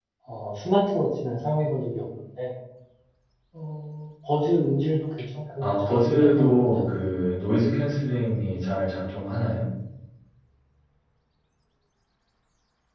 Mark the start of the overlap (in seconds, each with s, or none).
5.6 s